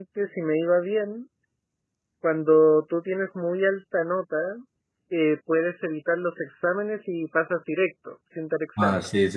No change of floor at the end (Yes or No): No